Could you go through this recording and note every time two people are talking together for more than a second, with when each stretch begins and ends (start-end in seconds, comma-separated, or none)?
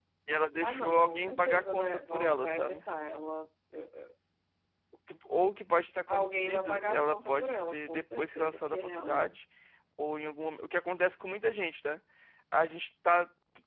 0.6-2.8, 6.1-9.2